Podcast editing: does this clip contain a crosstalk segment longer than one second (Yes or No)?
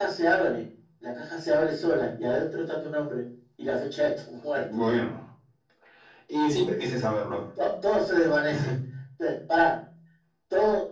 No